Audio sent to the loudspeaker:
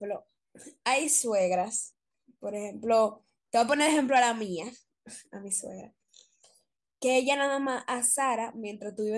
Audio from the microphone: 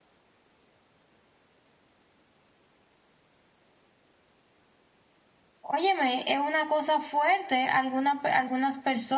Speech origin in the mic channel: user only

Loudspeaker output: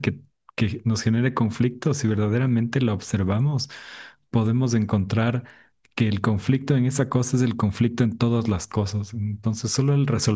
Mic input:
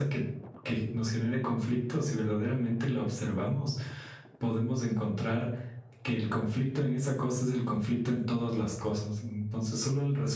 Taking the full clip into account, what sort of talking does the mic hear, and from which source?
echo only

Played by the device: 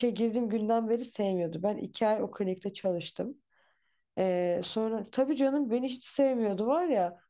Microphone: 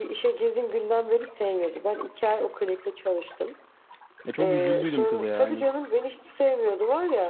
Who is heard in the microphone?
both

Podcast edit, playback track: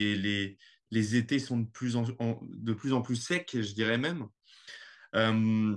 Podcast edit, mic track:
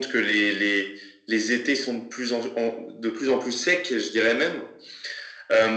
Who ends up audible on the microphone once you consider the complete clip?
echo only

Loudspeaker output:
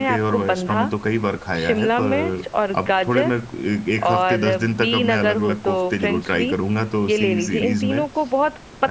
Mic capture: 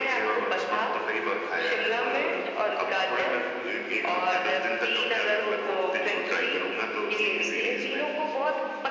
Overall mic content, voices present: echo only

